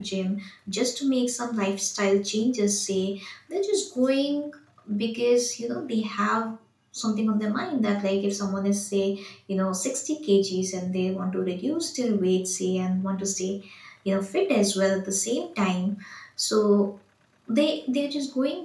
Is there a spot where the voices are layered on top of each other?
No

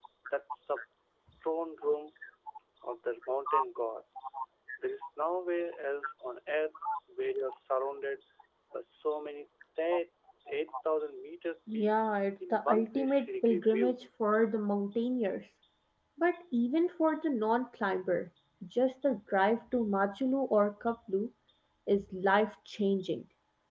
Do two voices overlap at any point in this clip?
Yes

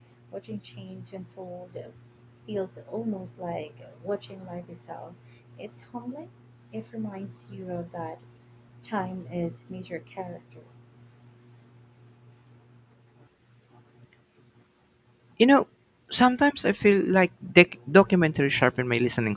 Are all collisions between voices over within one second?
Yes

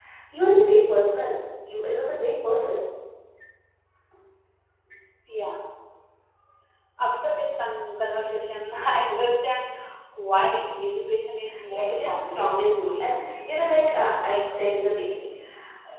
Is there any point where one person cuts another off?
Yes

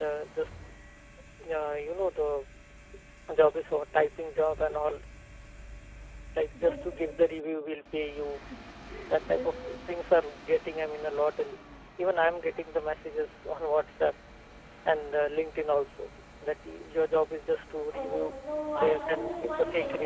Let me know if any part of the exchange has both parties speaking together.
Yes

